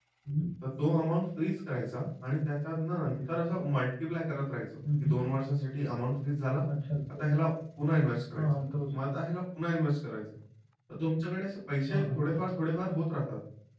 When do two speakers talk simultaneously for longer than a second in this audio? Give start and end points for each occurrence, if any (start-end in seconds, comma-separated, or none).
none